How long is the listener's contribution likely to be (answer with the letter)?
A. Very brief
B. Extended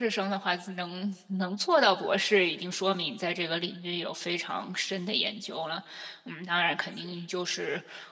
A